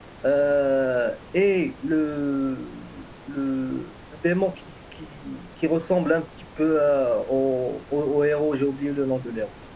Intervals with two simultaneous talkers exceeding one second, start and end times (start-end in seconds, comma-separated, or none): none